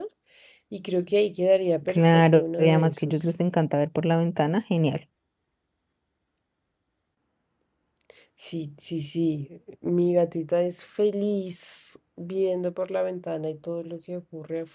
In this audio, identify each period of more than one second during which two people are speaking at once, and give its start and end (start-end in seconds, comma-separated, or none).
1.9-3.1